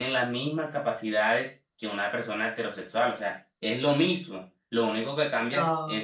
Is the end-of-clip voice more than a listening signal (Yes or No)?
No